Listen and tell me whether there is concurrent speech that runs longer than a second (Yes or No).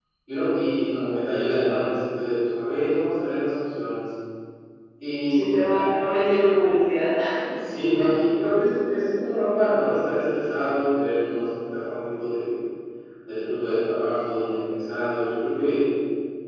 No